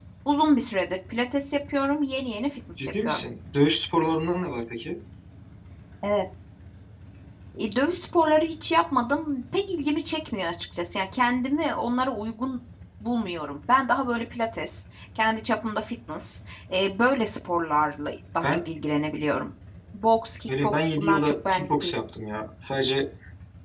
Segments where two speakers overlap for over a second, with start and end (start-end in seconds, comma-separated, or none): 20.5-22.0